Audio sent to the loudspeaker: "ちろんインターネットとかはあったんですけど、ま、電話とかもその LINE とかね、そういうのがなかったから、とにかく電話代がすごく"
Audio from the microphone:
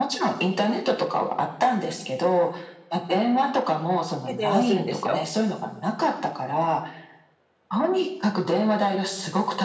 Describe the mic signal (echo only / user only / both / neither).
both